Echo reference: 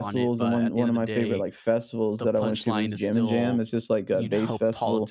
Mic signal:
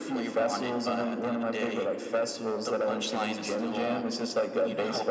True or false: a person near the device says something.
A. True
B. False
B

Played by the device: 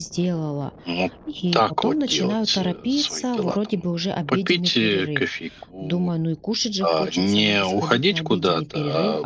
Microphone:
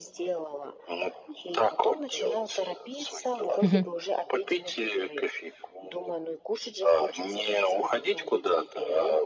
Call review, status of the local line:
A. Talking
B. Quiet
A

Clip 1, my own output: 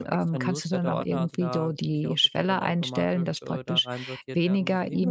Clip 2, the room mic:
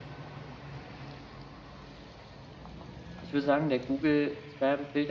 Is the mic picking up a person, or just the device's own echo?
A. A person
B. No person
A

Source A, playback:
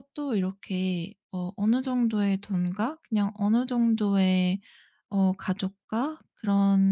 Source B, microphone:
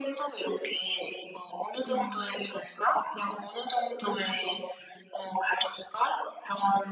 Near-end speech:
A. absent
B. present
B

